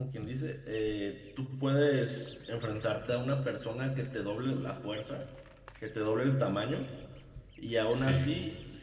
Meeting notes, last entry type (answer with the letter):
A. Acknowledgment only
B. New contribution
A